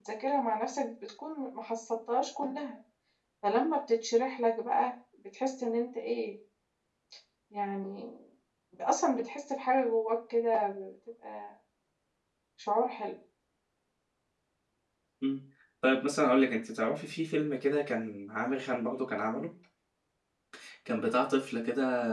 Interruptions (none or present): none